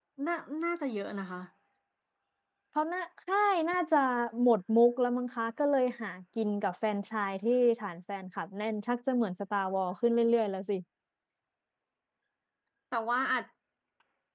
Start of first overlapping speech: none

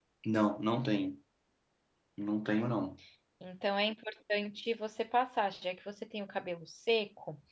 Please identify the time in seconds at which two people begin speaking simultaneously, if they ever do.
none

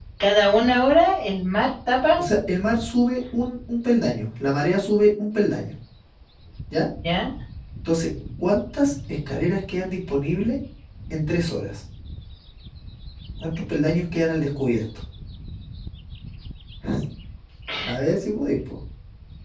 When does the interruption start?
none

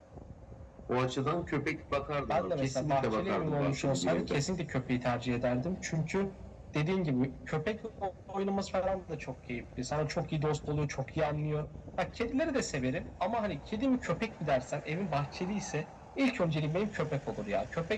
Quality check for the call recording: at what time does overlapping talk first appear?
2.3 s

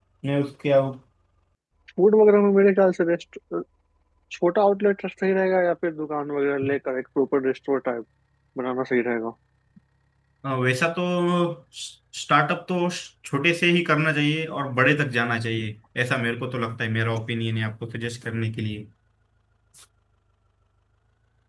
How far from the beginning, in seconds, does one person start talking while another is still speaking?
none

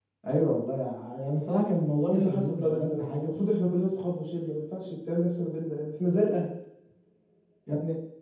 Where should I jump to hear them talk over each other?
2.1 s

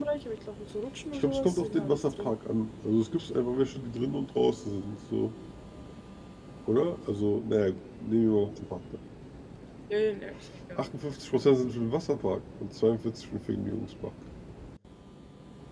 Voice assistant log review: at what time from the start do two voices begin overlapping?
1.1 s

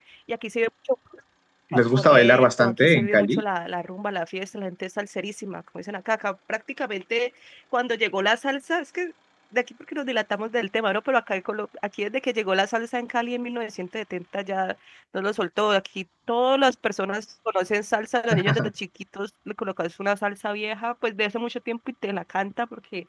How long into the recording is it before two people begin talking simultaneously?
1.8 s

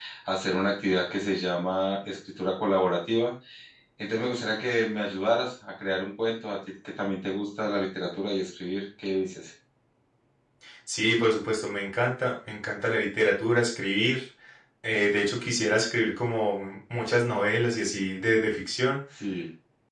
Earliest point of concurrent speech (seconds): none

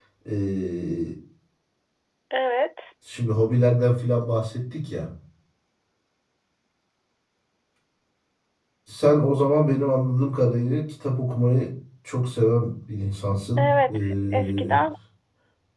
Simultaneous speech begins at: 13.6 s

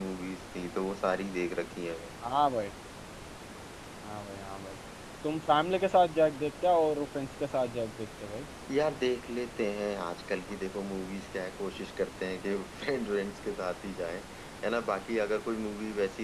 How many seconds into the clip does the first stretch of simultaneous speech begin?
none

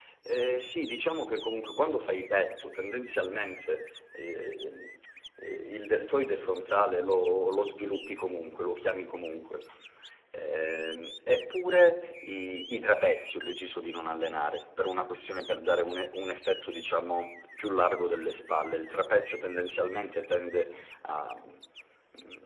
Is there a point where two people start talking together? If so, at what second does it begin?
none

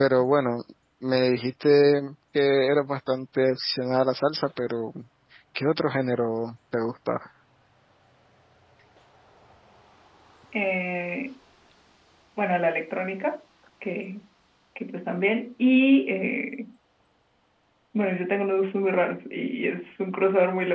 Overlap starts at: none

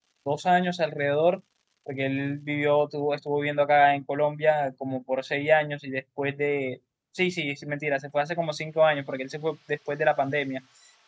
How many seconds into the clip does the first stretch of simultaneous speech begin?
none

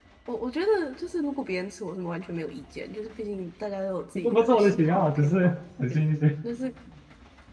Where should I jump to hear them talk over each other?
4.2 s

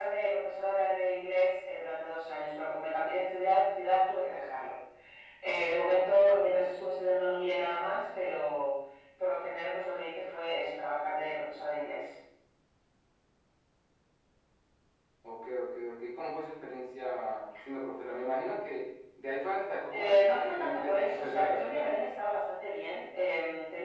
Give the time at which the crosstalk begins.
19.9 s

